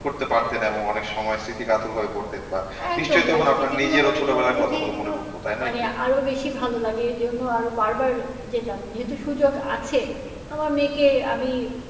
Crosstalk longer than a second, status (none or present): present